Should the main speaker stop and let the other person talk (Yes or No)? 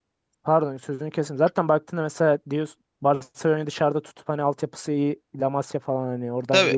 Yes